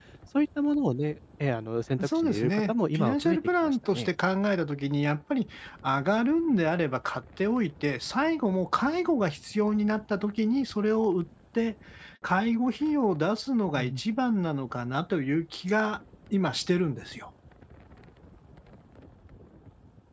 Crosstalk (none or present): present